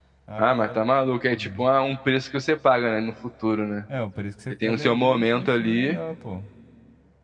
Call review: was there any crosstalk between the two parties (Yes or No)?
Yes